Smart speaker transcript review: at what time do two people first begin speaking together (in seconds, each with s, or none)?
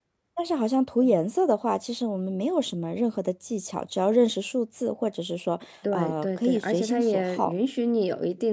5.8 s